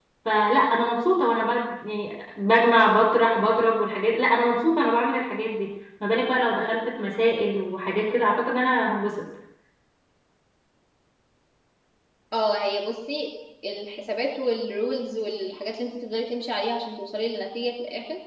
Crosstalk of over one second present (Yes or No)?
No